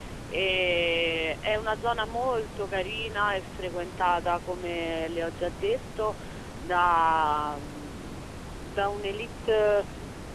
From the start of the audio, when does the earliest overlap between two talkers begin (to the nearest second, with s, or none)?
none